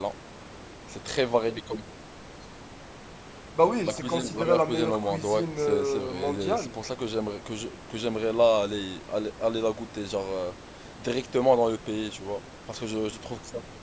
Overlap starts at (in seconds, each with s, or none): 3.8 s